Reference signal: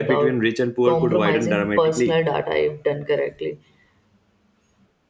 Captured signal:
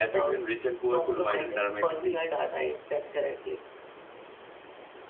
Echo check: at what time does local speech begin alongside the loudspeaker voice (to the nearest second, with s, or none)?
none